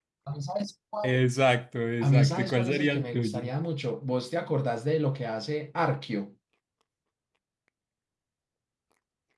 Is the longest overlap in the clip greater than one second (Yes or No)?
Yes